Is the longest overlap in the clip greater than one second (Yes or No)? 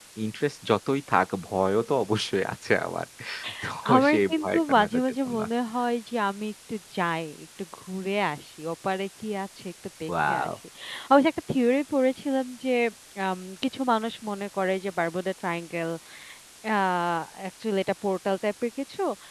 Yes